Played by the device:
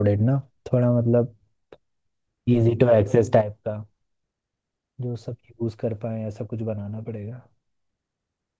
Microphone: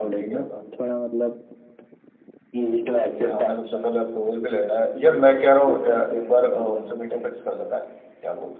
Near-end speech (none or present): present